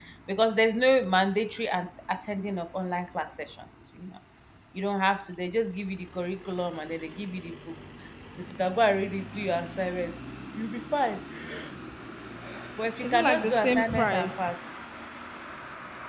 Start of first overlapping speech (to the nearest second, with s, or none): 13 s